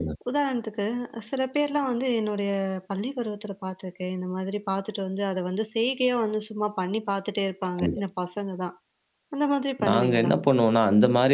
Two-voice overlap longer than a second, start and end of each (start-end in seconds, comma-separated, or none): none